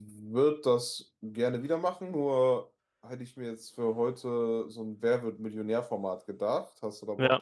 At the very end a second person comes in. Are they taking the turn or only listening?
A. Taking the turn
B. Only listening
A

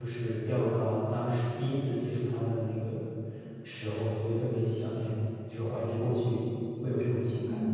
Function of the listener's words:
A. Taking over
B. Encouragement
A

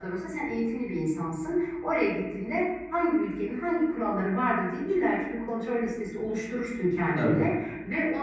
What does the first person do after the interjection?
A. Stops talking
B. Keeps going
B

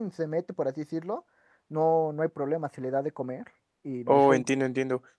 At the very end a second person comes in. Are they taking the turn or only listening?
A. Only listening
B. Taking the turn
B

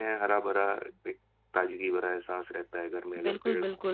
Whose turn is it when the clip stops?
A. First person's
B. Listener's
B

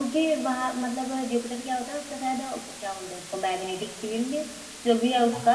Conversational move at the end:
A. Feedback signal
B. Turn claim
A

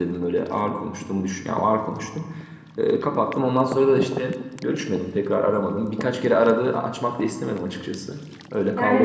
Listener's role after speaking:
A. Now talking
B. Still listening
A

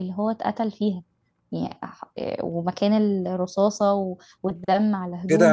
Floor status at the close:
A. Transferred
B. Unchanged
A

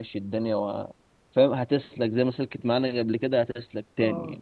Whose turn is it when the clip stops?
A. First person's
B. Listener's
A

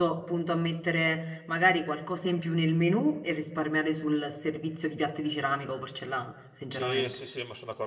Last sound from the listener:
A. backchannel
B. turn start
B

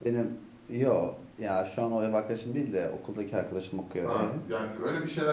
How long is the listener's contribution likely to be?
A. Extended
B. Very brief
A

